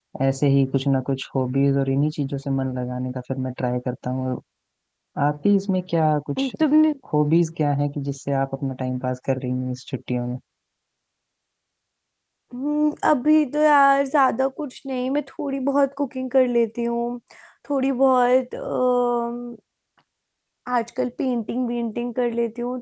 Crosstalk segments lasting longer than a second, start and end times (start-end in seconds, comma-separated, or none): none